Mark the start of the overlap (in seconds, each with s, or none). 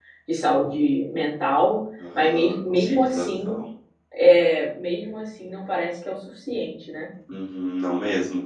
2.2 s